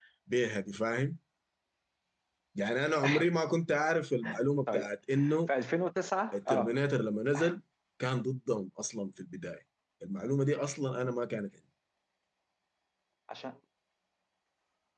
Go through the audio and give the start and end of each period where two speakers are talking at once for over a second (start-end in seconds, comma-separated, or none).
none